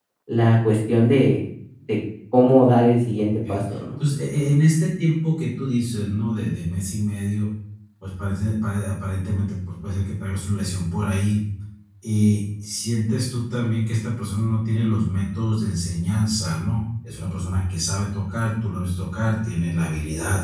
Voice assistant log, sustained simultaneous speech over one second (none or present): none